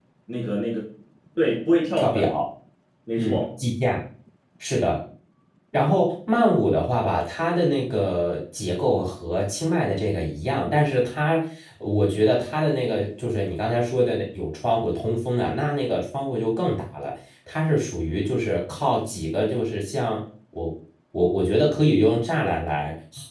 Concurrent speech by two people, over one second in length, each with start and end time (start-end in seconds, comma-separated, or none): none